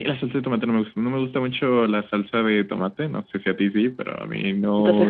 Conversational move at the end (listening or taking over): taking over